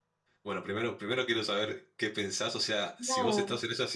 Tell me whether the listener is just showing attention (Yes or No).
Yes